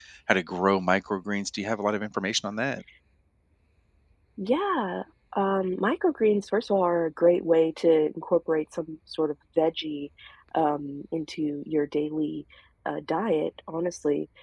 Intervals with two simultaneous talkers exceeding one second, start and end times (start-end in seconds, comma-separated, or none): none